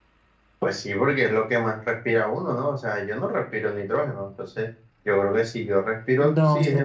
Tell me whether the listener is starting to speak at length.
Yes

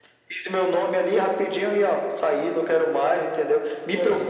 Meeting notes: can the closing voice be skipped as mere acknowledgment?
Yes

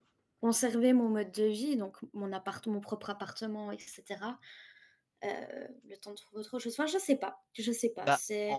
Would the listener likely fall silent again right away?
No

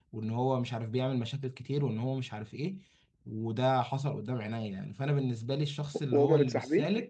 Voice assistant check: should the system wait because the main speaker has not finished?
Yes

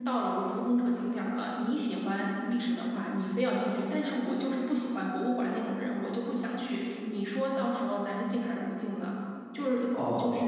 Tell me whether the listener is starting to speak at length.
Yes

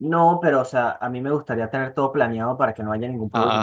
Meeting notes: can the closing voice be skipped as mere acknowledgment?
Yes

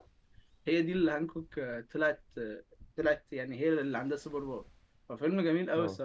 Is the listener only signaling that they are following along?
Yes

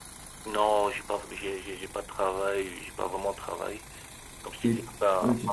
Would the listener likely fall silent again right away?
Yes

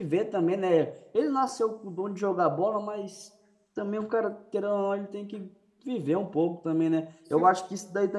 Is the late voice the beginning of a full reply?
No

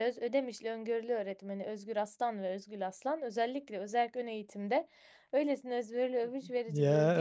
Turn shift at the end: Yes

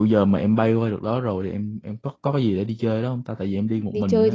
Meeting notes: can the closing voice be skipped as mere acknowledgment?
No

